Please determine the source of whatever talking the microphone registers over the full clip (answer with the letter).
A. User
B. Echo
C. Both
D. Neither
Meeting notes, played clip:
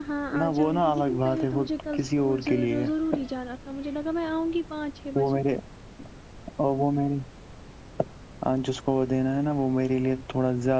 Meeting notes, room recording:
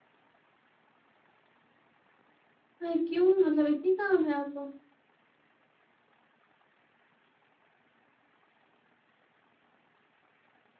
A